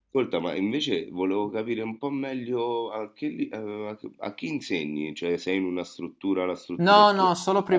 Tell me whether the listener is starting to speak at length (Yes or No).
Yes